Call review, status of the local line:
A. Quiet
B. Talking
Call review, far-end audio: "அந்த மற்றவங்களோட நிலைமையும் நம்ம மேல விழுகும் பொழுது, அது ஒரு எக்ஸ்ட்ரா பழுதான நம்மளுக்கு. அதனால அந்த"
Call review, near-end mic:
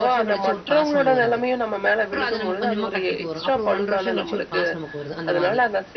B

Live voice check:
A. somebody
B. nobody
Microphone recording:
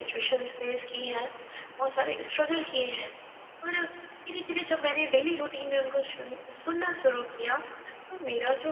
B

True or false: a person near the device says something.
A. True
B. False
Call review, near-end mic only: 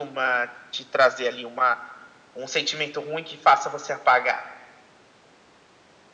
B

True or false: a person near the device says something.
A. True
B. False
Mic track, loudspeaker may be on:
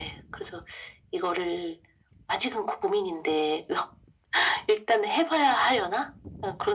B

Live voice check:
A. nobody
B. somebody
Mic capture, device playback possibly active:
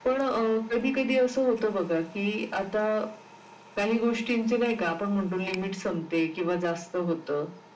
A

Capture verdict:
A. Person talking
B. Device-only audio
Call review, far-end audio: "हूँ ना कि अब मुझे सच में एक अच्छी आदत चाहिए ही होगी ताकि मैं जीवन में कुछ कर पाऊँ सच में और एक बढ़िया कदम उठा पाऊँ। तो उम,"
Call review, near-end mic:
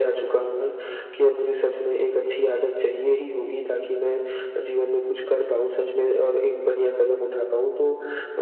B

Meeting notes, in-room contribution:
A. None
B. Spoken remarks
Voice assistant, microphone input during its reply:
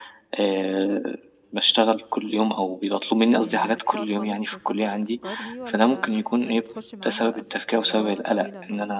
B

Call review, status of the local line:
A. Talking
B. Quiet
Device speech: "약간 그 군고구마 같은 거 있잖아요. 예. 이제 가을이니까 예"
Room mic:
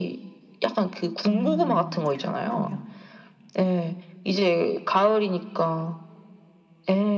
A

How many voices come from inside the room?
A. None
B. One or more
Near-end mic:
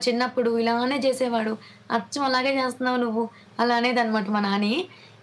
A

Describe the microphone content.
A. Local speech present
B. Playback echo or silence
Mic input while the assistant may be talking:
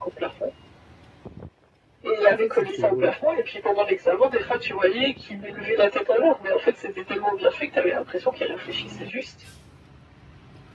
A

